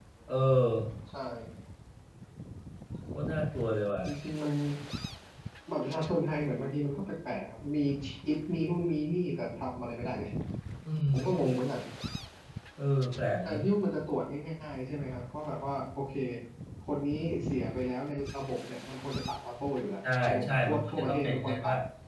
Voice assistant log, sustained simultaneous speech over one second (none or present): present